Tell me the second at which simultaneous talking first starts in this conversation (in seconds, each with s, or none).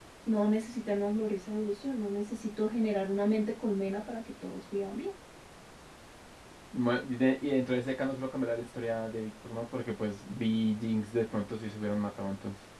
none